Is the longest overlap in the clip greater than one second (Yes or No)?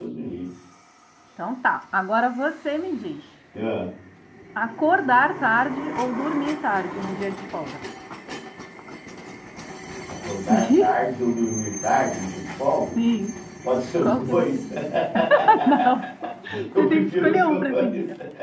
Yes